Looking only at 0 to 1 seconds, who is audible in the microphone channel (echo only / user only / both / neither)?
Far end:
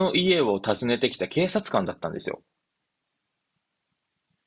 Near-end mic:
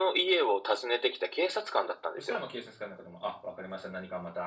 echo only